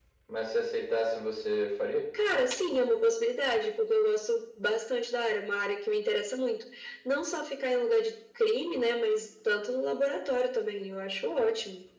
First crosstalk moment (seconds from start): none

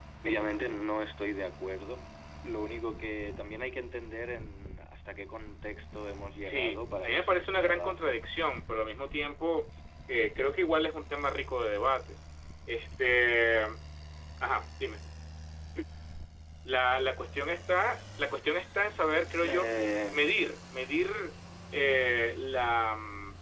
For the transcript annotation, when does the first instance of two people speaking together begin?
6.4 s

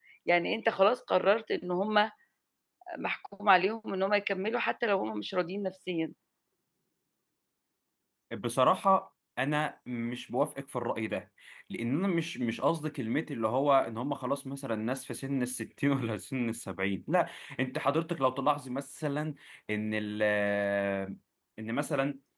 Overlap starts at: none

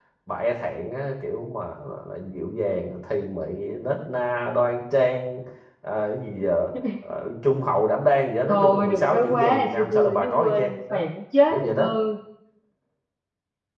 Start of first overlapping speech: 8.5 s

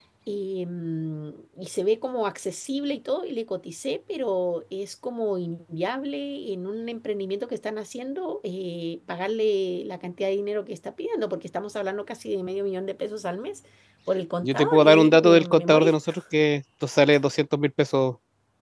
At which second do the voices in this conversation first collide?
14.4 s

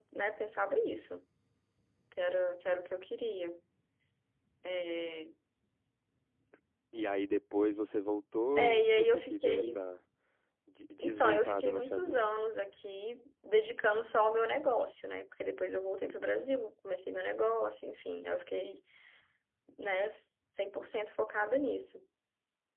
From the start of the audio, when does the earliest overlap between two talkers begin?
8.6 s

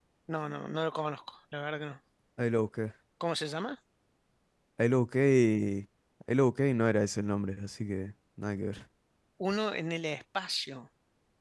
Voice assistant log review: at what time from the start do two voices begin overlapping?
none

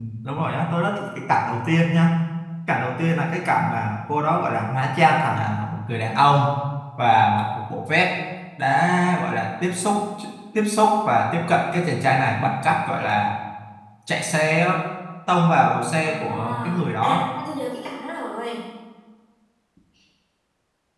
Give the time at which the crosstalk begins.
16.0 s

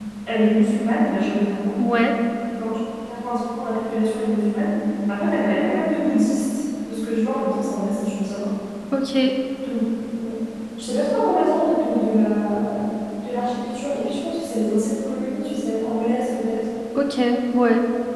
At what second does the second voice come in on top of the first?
none

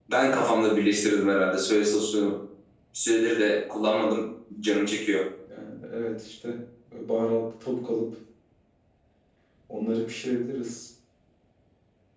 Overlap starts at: none

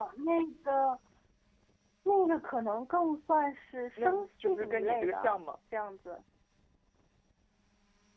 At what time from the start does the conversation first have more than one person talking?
4.0 s

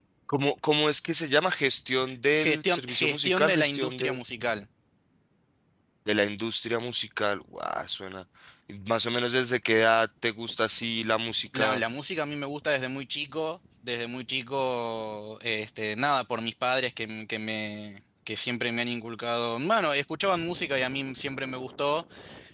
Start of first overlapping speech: 2.3 s

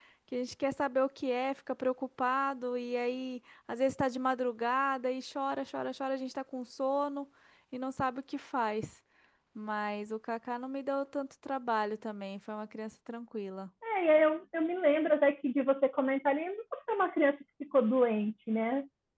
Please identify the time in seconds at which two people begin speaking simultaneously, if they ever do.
none

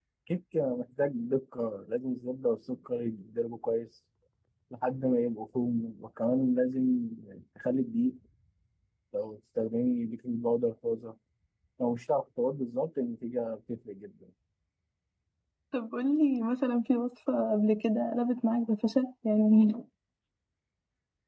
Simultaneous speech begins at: none

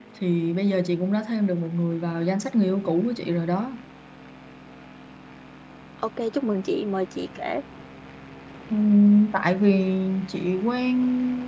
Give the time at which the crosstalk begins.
none

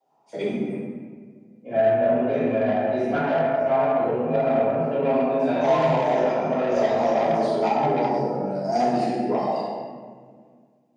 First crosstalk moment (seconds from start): 5.6 s

